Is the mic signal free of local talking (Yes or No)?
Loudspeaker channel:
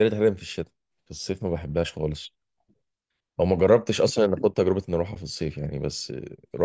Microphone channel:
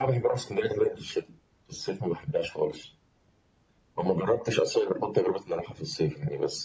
Yes